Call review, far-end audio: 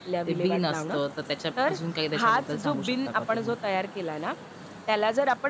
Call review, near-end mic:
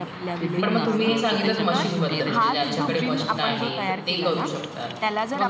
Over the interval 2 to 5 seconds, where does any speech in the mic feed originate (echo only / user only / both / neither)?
both